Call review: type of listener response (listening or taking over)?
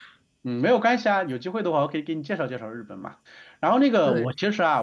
listening